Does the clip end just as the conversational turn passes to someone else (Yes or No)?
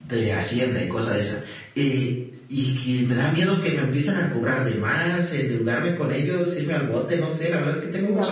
Yes